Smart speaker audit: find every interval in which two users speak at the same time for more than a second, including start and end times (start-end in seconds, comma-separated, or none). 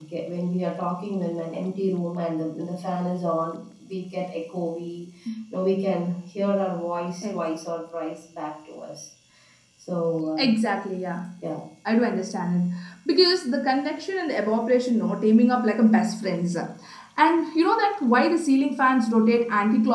none